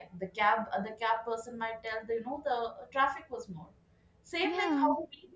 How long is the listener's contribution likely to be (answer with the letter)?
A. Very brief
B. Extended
A